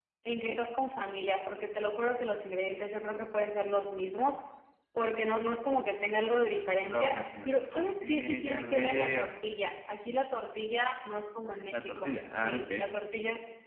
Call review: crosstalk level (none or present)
present